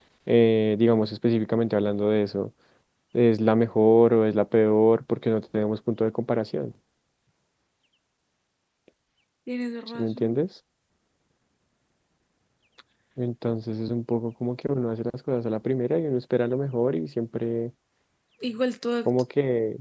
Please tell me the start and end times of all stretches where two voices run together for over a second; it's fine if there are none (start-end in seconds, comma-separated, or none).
none